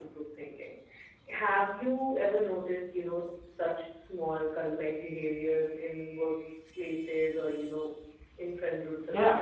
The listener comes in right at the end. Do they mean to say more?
Yes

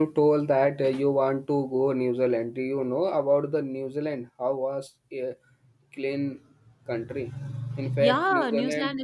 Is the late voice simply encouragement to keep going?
No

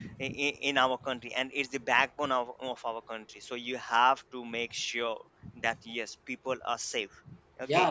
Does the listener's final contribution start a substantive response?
Yes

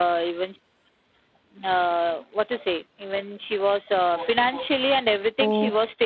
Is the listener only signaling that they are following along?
Yes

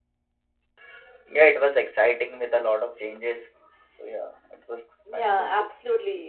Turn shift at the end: Yes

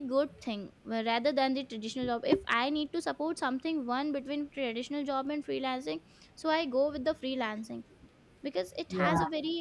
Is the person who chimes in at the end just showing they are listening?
Yes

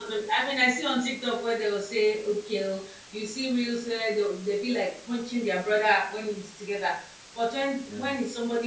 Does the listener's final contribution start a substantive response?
No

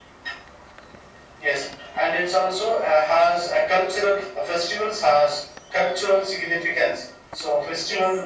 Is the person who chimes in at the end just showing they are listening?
Yes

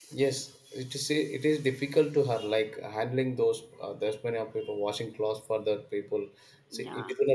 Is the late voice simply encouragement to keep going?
No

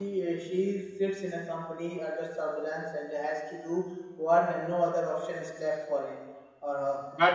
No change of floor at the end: Yes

